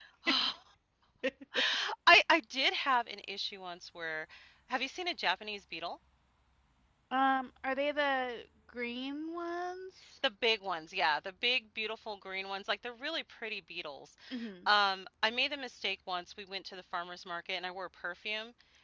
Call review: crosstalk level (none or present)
none